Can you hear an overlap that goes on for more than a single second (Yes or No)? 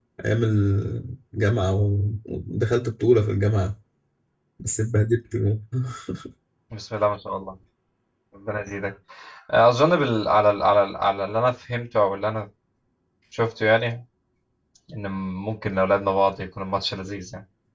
No